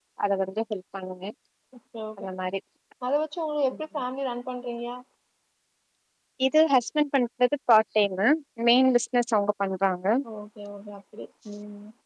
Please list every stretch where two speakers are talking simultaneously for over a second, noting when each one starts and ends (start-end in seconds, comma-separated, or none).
none